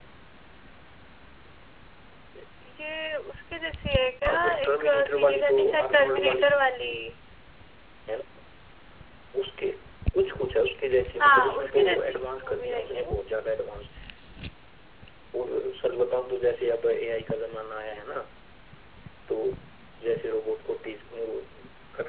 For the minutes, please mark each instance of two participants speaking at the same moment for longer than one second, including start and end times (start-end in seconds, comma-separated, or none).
4.2-6.8, 11.2-13.2